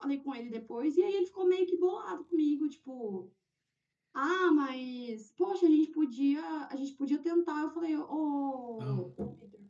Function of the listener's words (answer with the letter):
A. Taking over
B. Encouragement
B